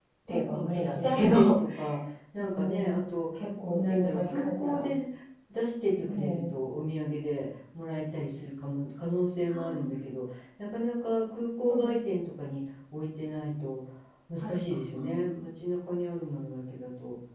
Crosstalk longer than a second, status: present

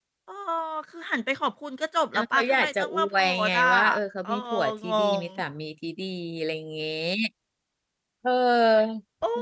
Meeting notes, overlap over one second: present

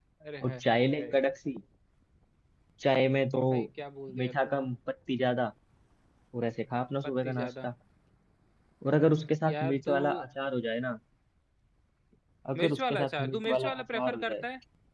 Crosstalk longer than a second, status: present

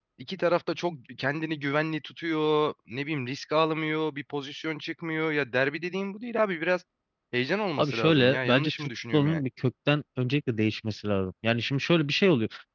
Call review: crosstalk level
present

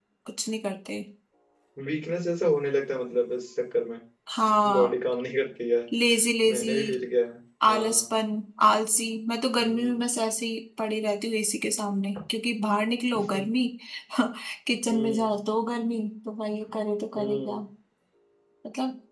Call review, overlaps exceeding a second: none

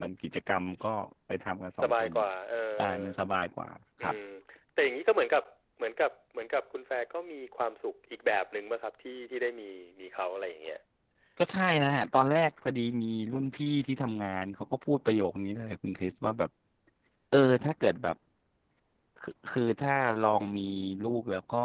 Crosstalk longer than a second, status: none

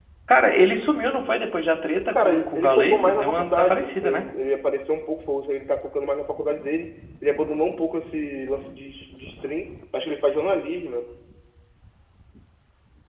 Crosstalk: present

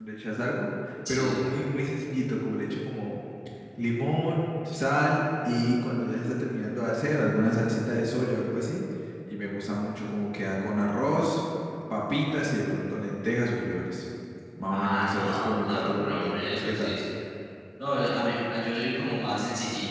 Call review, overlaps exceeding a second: present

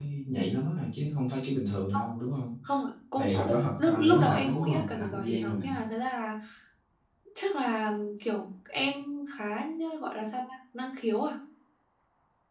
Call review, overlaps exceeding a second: present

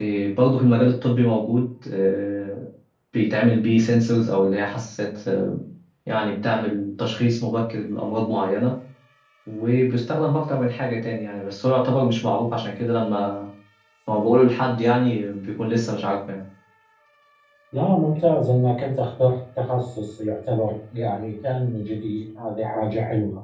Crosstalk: none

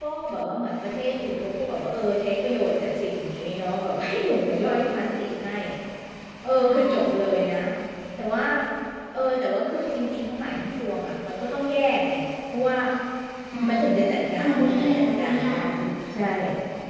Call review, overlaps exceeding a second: present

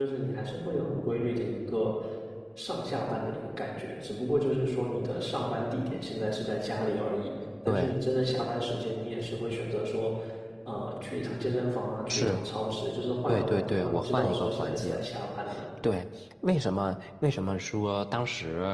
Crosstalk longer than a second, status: present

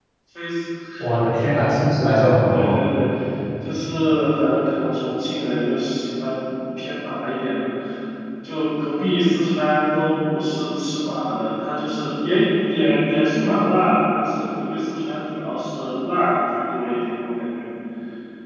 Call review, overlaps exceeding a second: none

